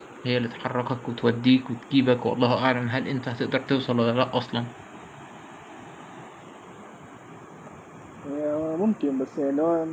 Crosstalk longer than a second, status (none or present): none